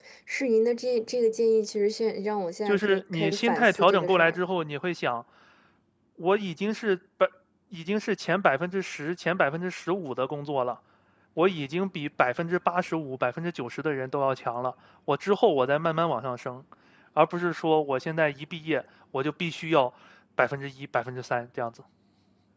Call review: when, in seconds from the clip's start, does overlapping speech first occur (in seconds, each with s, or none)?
2.7 s